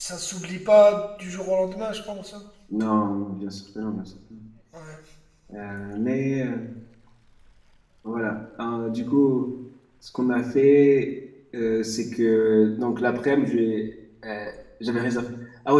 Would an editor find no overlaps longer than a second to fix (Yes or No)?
Yes